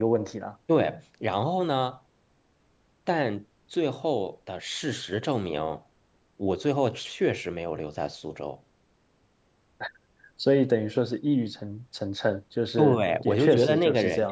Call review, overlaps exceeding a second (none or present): present